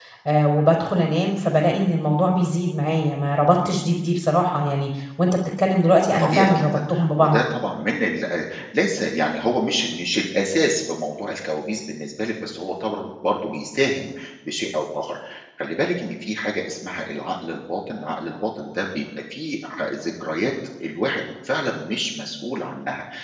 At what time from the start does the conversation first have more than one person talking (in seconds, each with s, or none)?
6.2 s